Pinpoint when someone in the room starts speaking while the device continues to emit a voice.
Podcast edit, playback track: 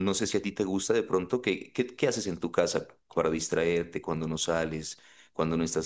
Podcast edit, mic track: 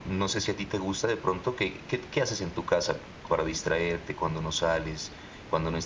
none

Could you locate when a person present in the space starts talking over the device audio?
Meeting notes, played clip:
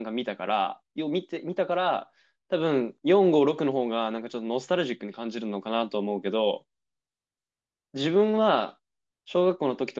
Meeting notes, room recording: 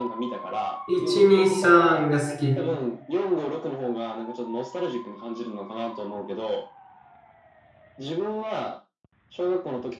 1 s

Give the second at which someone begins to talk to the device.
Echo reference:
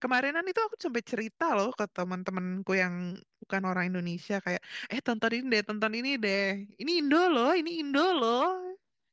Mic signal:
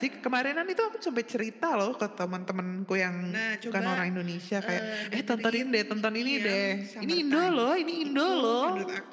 3 s

